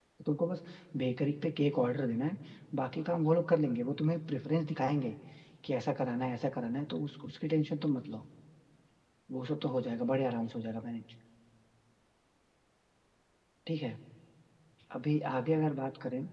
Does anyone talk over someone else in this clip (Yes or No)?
No